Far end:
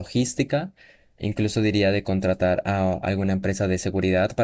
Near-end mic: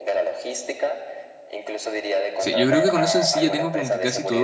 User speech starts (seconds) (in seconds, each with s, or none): 2.4 s